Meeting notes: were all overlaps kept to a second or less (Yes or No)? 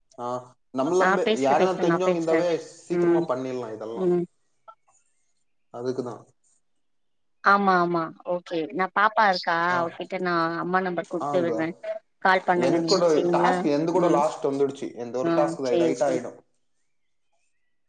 No